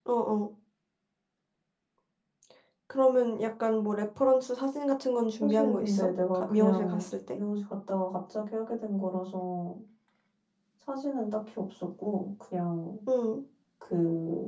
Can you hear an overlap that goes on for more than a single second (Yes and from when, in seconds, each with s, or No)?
Yes, from 5.4 s